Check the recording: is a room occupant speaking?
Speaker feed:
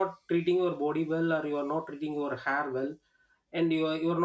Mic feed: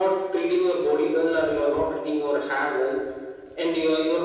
No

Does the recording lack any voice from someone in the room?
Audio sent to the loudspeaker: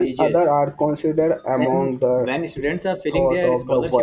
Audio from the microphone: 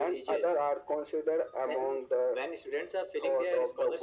Yes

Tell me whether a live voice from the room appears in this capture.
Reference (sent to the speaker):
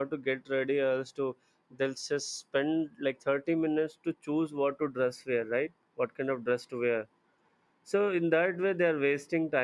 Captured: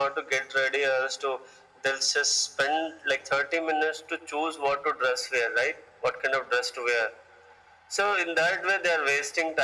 No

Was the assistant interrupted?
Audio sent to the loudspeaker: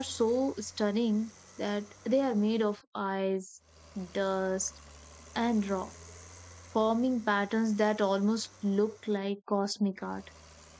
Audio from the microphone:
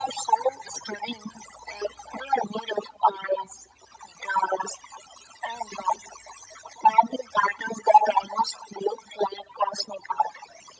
No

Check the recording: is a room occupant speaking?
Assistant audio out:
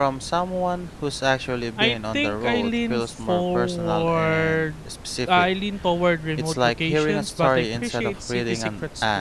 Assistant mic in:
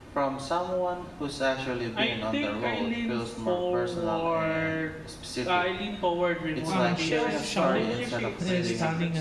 Yes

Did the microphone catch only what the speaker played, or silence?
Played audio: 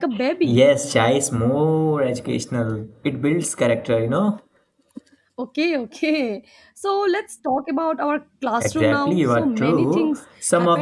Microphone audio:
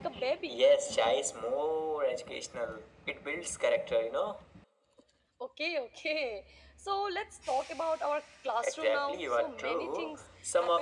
Yes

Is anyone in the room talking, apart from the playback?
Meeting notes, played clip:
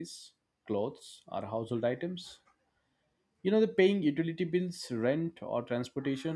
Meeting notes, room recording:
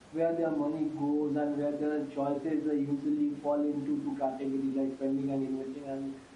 Yes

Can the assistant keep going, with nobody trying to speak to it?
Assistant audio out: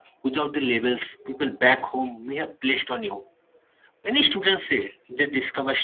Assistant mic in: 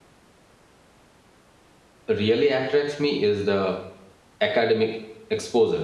No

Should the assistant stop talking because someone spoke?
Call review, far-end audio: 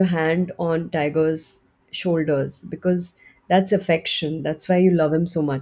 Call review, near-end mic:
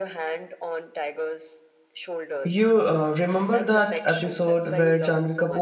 Yes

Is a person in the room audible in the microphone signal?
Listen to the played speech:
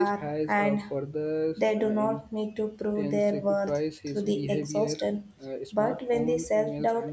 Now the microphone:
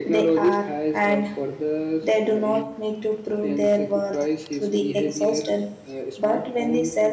No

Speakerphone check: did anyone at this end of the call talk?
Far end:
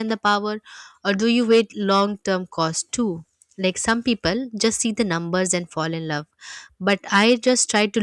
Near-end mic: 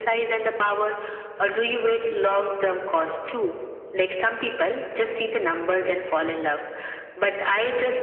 No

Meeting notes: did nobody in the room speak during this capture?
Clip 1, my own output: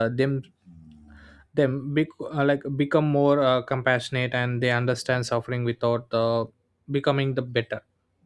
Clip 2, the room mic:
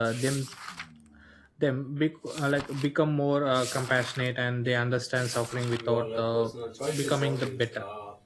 No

